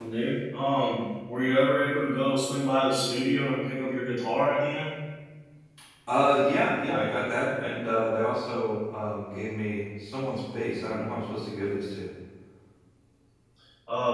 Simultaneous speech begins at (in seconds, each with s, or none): none